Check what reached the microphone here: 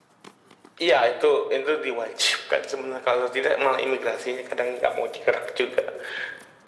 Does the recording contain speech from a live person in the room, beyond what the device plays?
No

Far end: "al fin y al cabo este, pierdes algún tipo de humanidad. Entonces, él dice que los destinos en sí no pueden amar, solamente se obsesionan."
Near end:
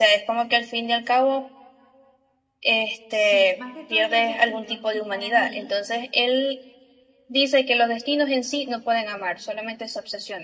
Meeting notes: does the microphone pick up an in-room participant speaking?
Yes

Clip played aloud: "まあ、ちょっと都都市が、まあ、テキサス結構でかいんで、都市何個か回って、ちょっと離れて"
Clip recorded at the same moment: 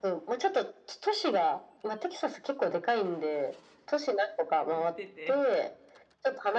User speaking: Yes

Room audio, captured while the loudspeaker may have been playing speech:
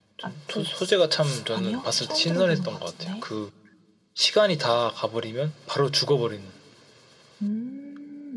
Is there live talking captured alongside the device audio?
No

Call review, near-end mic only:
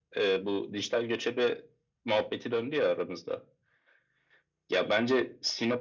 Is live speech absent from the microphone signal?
Yes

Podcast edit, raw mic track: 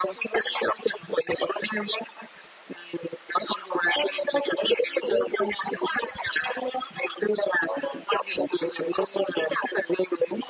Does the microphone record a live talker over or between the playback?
No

